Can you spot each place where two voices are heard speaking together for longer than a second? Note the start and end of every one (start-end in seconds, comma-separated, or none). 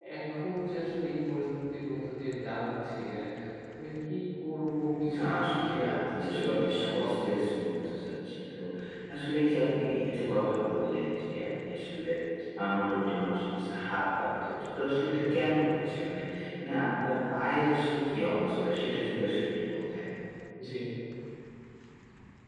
5.2-7.4